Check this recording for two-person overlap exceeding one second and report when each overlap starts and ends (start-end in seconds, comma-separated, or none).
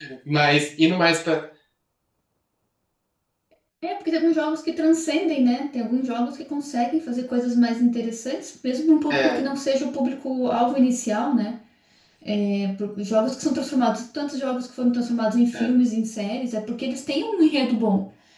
none